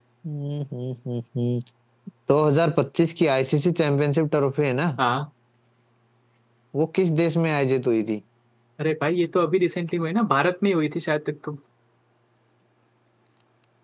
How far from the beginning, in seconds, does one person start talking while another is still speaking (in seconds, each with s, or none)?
none